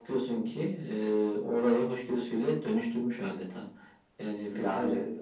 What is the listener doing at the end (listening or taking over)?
listening